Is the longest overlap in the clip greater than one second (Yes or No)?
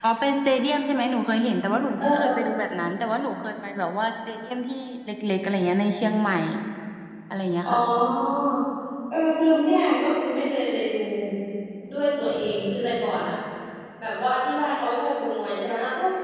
No